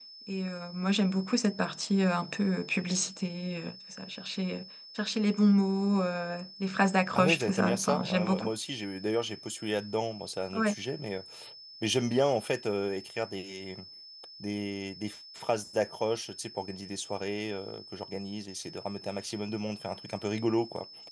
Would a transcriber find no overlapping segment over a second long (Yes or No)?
No